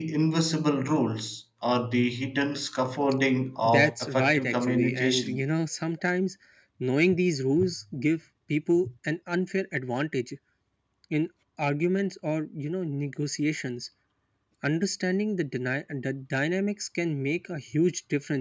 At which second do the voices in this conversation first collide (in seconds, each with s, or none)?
3.6 s